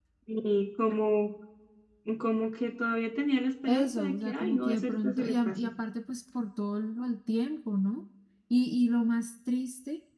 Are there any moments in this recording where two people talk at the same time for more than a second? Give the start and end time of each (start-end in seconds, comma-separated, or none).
3.7-5.7